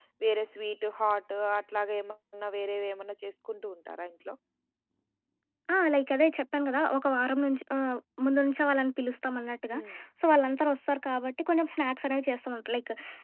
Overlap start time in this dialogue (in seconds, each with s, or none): none